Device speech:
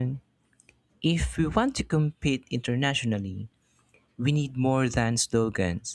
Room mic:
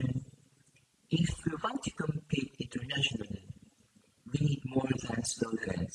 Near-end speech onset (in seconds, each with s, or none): none